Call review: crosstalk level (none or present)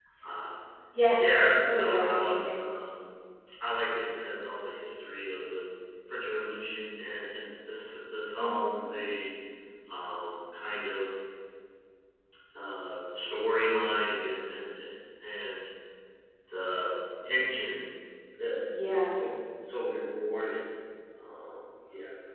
present